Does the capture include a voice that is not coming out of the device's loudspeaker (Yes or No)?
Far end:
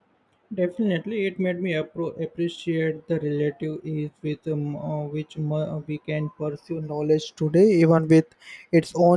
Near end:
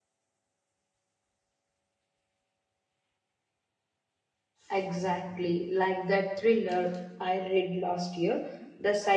Yes